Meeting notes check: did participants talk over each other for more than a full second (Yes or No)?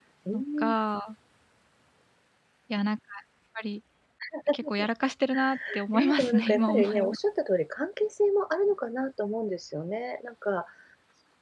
Yes